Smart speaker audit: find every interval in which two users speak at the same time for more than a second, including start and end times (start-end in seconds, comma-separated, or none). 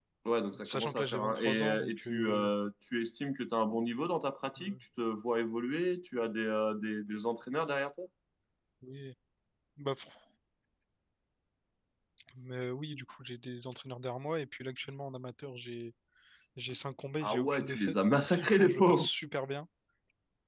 0.6-2.5, 17.2-19.1